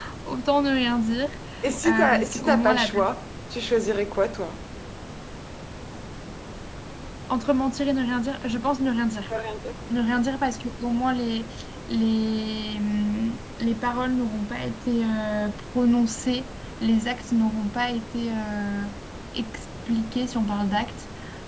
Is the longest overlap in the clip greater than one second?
Yes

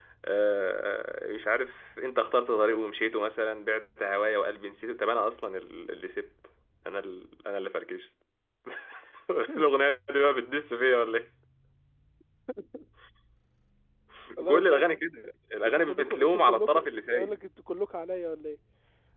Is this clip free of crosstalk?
No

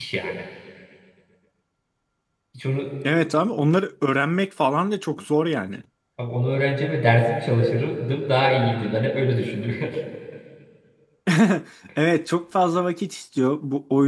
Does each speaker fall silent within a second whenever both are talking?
Yes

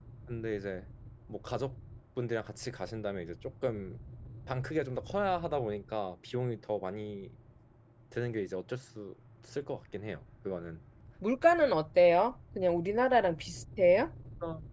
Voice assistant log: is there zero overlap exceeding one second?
Yes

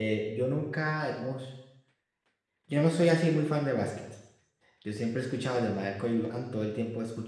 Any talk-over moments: No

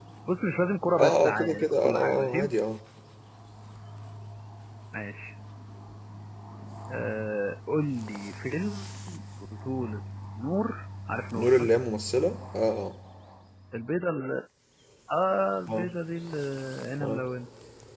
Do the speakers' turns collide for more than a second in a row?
Yes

